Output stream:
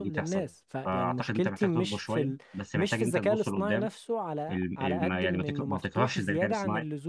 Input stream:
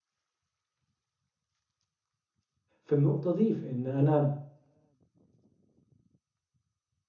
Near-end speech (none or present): present